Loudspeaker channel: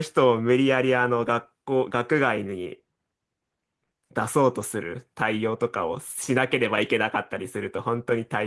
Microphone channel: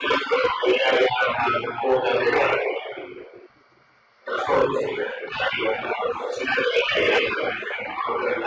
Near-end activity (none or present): none